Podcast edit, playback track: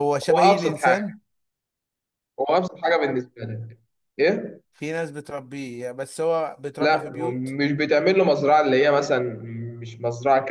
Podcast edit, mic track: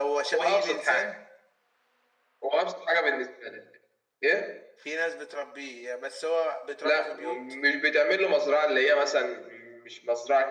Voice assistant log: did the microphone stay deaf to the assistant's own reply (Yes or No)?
No